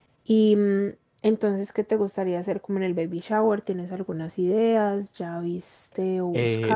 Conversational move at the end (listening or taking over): taking over